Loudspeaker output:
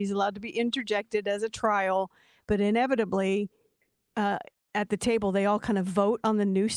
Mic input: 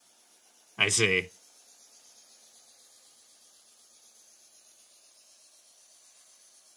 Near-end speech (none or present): present